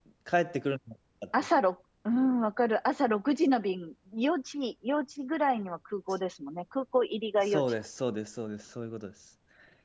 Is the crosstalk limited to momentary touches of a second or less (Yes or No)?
Yes